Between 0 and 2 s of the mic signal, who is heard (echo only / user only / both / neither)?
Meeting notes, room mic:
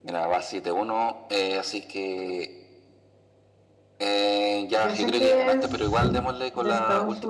echo only